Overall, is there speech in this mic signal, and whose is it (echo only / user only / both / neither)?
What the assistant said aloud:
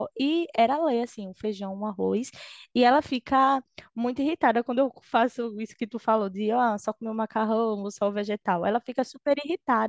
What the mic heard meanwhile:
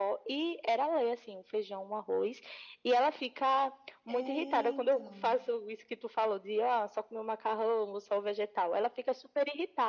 both